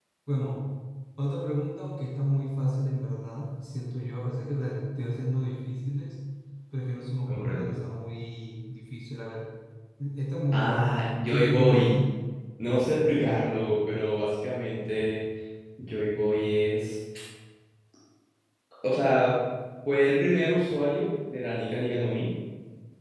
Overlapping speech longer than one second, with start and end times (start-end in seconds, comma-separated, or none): 10.5-12.0